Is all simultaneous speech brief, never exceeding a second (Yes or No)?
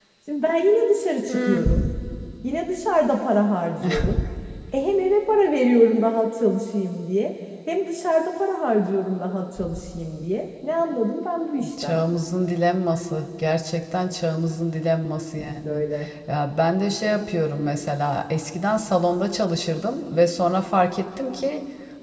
Yes